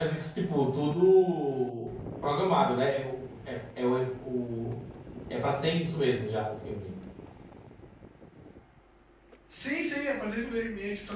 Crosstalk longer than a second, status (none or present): none